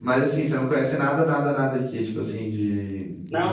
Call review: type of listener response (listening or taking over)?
taking over